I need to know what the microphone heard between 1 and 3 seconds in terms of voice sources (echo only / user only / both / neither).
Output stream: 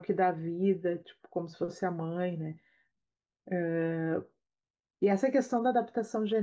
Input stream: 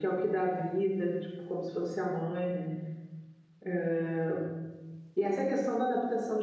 echo only